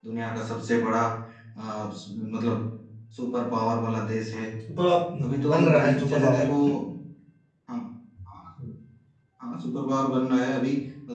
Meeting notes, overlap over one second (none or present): present